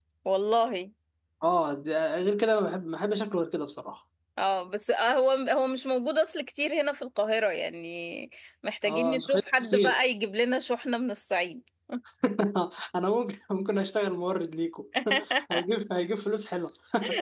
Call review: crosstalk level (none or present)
present